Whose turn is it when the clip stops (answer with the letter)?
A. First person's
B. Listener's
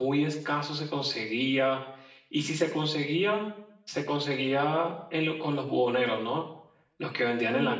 B